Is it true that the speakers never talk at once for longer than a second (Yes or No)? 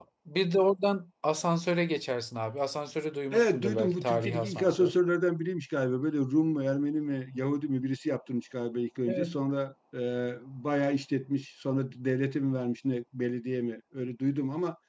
No